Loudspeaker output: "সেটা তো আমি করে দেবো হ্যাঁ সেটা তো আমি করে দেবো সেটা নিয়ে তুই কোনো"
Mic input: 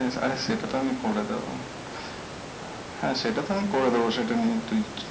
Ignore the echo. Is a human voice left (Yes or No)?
No